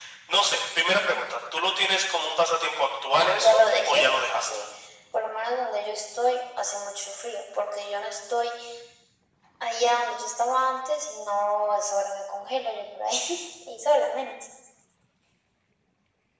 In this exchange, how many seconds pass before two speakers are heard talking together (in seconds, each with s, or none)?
3.1 s